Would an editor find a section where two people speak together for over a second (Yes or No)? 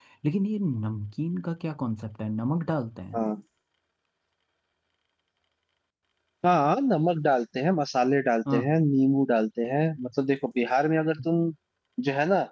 No